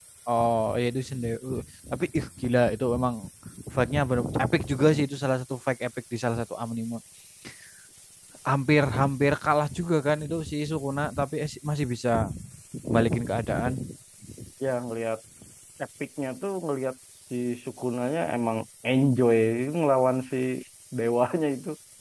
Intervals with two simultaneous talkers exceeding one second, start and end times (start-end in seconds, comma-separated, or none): none